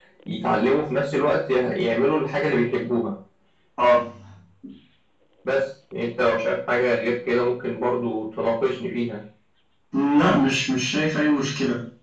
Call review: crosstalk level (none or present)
none